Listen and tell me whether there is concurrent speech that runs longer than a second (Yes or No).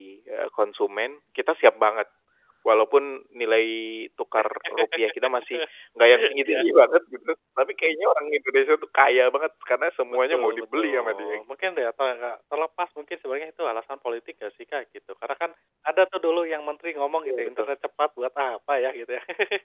Yes